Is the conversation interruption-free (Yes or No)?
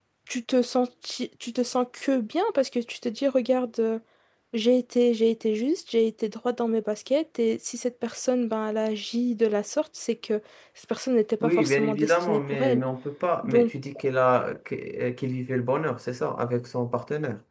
No